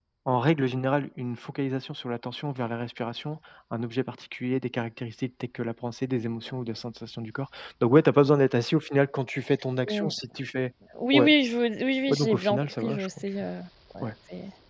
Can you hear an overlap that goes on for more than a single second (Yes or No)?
Yes